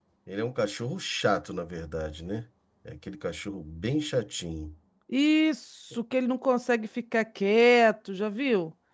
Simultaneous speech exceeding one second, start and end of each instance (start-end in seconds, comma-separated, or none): none